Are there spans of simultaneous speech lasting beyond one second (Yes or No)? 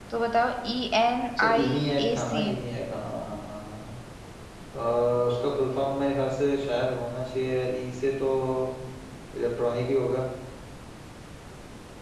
No